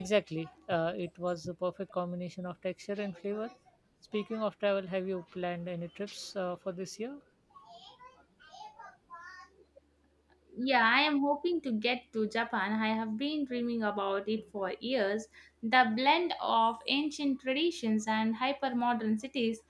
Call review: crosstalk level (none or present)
none